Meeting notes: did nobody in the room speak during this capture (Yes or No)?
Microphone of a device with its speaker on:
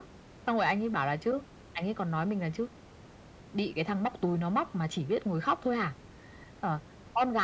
Yes